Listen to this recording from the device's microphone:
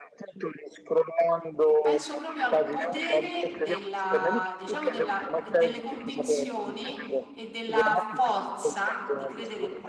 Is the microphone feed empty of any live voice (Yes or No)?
No